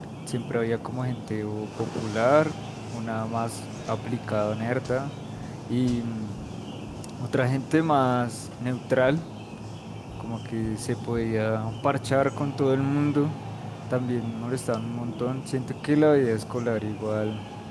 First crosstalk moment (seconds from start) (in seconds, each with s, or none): none